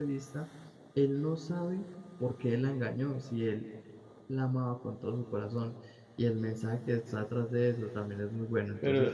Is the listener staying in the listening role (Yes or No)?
No